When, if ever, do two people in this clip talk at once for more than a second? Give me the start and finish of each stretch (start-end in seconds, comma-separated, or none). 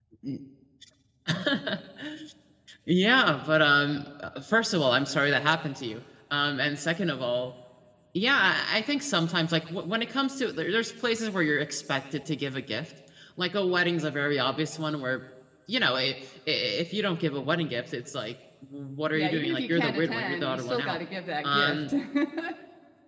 19.1-21.0